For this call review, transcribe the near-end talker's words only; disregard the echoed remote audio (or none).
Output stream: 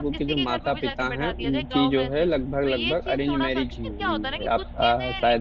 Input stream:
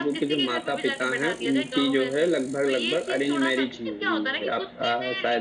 none